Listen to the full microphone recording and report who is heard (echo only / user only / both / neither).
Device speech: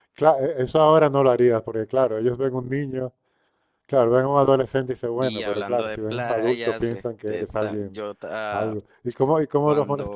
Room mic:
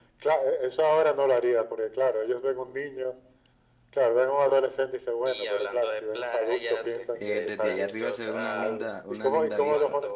both